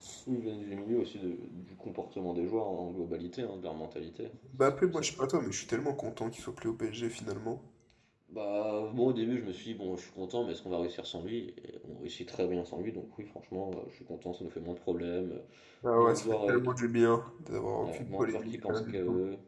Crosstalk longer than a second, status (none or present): present